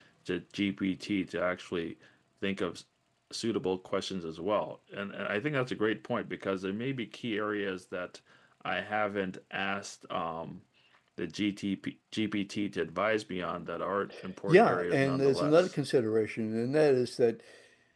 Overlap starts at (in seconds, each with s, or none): 14.5 s